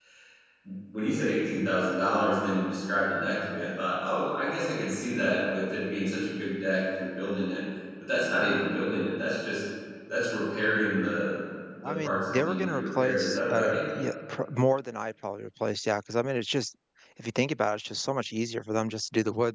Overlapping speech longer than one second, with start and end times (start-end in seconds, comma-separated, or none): 11.8-13.8